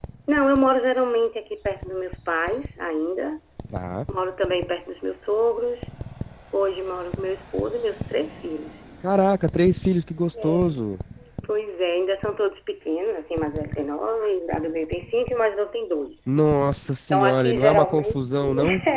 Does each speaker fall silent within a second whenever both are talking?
No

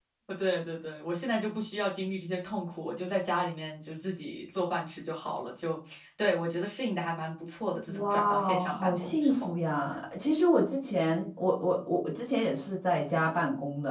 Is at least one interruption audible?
Yes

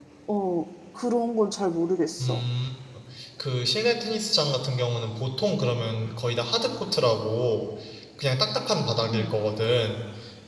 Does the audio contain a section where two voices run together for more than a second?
No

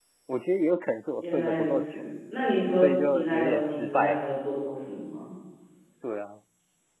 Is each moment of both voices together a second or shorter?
No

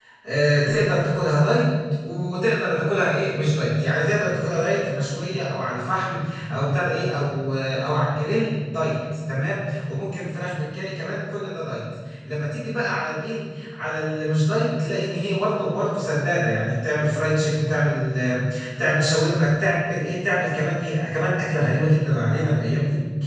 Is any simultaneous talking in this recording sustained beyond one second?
No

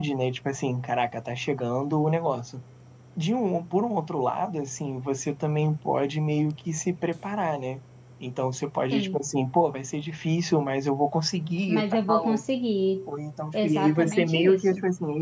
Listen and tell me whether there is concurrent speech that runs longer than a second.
Yes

